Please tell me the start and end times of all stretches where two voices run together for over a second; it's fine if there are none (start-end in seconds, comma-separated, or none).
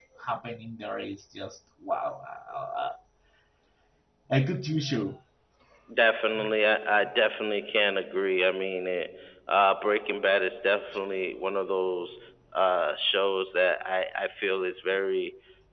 none